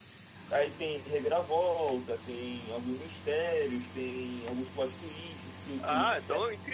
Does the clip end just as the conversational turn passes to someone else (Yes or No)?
Yes